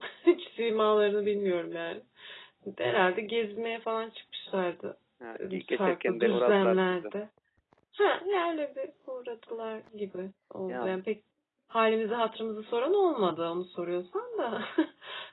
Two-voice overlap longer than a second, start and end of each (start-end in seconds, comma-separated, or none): 5.4-7.0